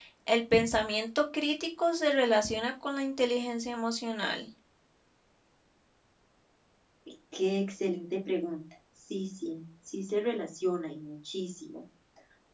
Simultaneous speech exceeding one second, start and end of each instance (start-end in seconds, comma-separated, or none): none